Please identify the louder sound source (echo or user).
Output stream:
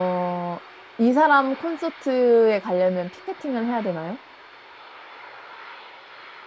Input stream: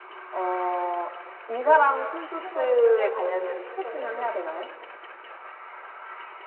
echo